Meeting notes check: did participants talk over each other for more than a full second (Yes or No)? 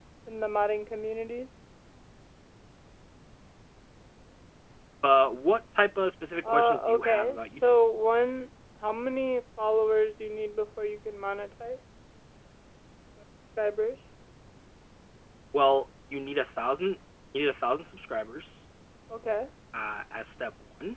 Yes